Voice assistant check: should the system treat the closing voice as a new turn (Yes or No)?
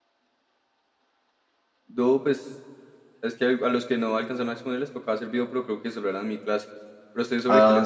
Yes